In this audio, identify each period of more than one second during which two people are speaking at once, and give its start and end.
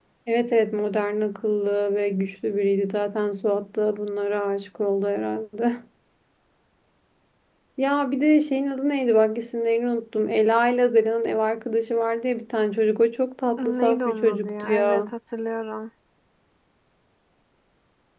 13.6-15.1

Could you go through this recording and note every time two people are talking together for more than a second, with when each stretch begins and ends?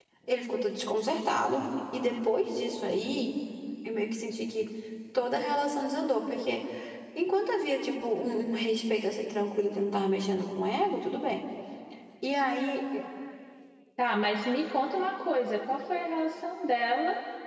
none

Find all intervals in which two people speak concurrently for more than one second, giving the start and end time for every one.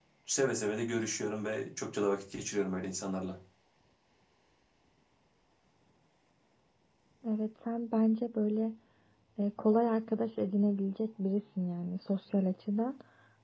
none

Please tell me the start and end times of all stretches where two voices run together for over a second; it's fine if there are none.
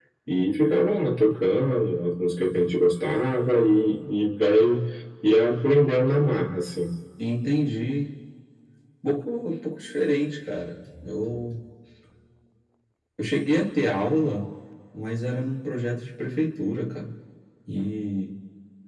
none

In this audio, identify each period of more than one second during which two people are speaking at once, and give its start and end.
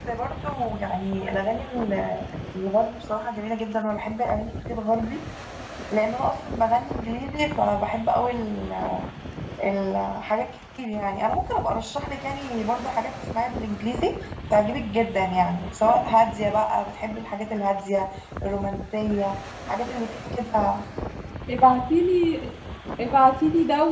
none

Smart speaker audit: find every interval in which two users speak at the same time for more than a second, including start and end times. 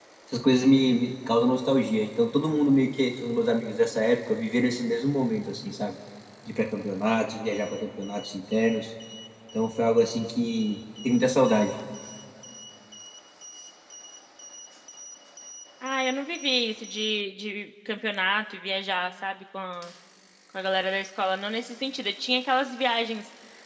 none

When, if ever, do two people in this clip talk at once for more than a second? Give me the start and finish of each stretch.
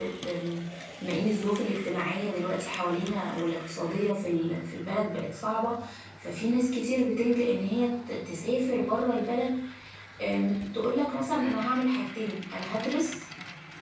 none

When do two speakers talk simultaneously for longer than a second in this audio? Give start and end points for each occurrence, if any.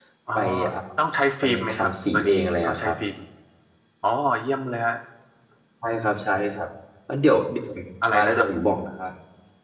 1.4-3.0

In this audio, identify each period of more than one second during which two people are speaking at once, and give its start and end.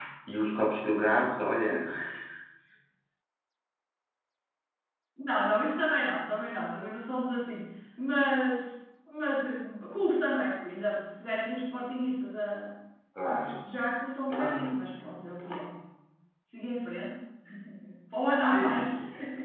none

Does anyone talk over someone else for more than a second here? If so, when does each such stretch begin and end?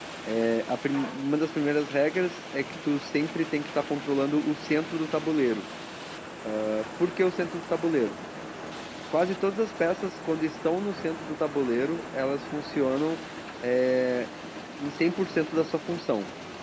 none

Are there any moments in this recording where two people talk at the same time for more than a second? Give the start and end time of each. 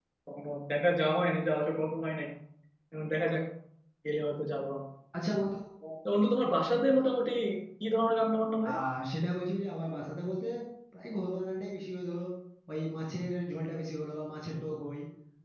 none

